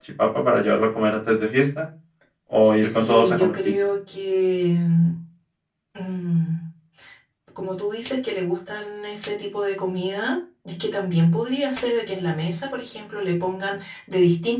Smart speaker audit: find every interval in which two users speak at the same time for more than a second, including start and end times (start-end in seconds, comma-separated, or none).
2.6-3.9